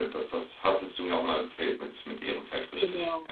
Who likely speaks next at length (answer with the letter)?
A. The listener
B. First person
A